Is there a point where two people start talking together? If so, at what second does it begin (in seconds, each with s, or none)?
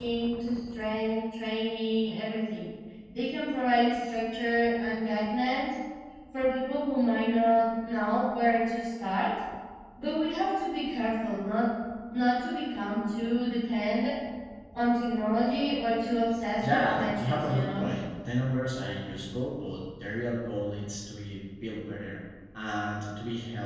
16.6 s